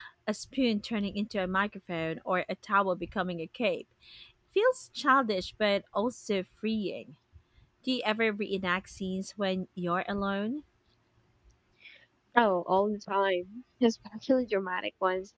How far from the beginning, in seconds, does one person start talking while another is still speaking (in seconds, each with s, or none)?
none